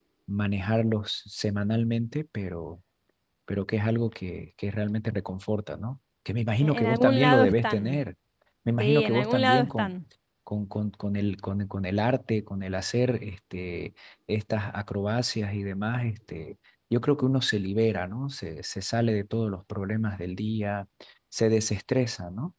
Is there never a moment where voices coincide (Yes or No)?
No